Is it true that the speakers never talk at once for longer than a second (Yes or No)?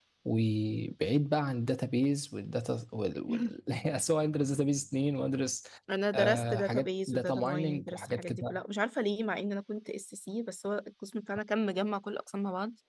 No